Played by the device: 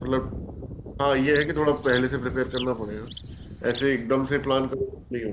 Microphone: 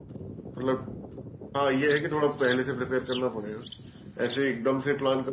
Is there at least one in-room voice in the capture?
No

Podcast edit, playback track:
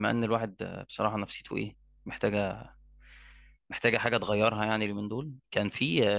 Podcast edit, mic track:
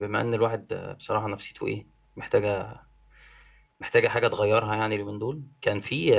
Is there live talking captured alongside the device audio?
No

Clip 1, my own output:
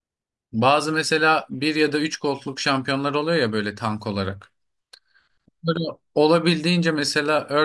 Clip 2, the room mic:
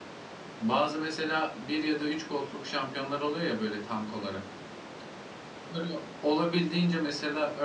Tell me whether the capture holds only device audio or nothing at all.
Yes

